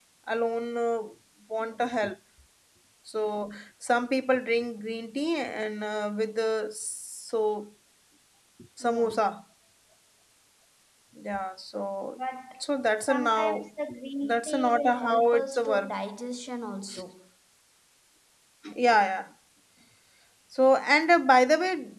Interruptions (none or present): present